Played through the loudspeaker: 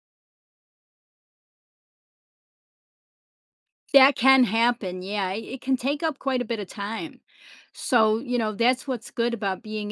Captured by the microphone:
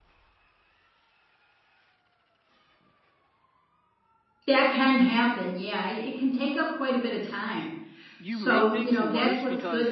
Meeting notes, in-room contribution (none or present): present